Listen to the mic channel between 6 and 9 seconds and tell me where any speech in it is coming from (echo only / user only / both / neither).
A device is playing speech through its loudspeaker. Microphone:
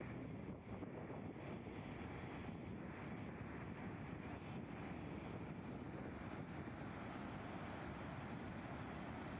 neither